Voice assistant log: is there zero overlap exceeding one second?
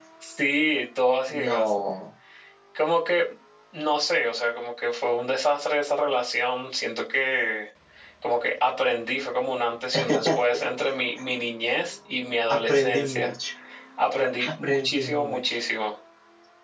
No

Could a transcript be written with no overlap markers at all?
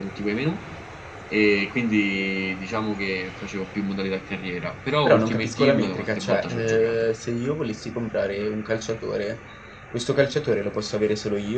No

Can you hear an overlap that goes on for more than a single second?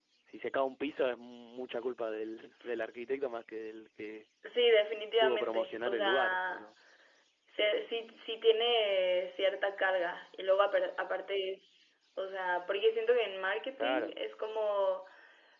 Yes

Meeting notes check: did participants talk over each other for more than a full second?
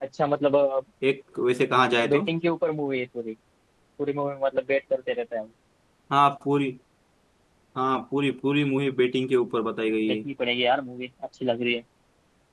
No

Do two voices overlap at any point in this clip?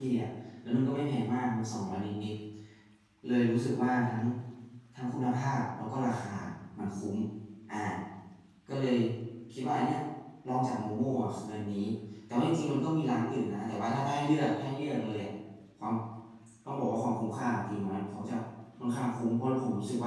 No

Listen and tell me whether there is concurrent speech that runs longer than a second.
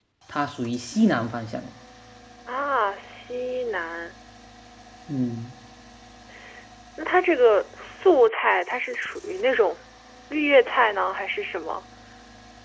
No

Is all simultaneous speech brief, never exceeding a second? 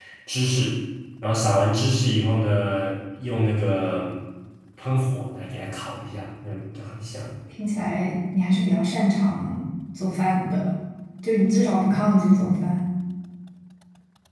Yes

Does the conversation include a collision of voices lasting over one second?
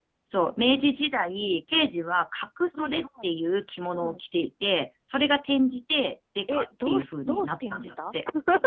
Yes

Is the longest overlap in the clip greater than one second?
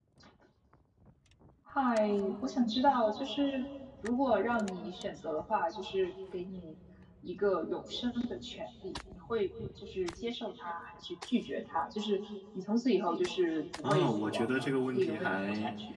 Yes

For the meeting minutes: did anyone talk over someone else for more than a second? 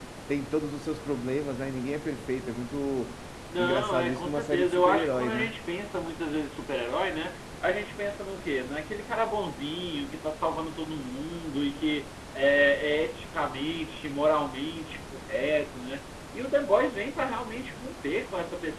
Yes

